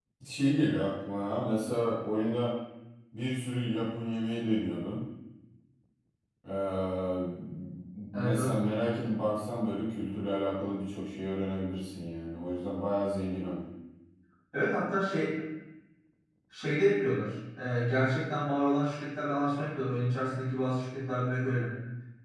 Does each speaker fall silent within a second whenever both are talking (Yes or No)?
Yes